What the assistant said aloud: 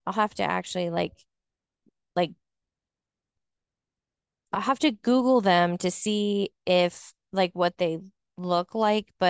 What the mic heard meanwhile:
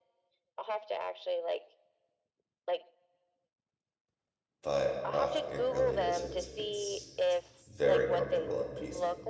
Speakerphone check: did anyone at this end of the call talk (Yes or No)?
Yes